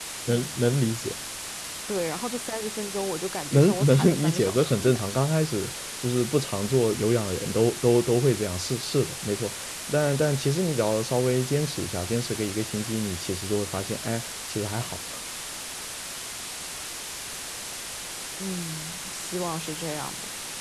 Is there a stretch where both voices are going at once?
Yes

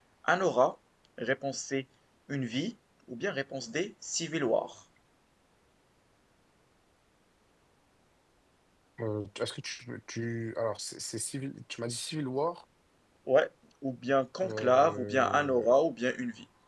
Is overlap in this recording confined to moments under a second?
No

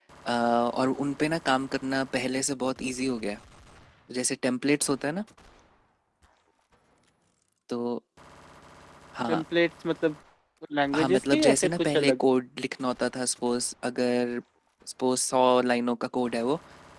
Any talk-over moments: Yes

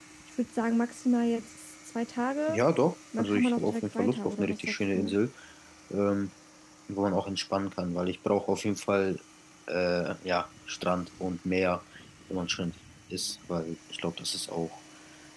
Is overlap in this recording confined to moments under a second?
No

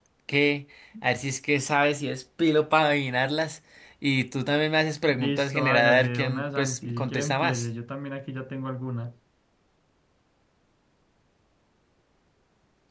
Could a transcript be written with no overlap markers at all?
No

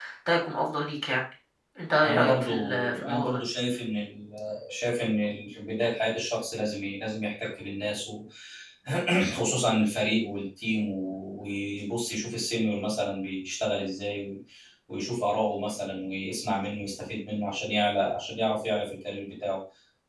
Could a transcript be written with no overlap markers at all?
No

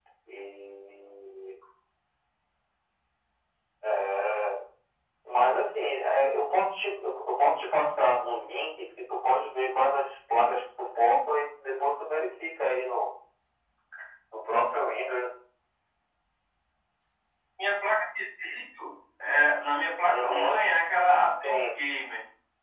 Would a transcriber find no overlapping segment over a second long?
Yes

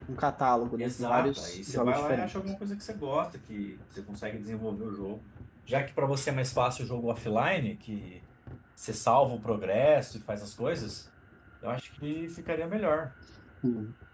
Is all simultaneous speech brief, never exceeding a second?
No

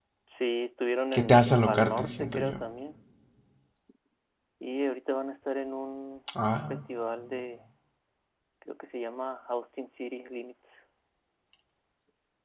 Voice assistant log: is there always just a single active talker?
No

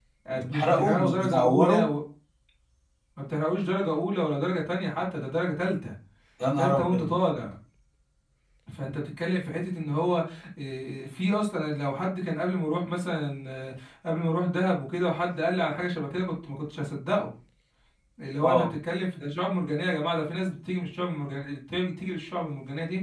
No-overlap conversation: No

